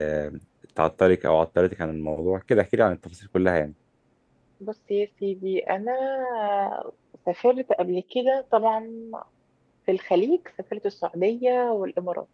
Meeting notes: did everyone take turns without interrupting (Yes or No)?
Yes